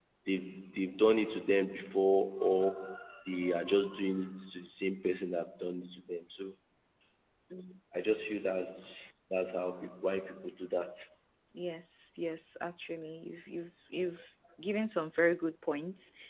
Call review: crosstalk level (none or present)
none